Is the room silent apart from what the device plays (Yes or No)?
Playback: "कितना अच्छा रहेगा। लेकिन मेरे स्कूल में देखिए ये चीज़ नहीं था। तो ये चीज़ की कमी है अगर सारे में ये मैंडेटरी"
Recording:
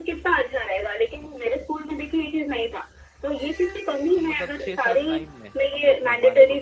No